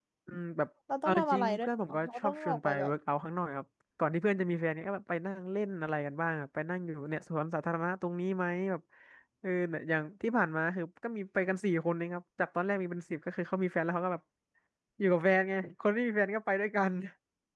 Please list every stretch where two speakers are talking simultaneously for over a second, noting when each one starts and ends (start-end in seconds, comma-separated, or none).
1.1-2.9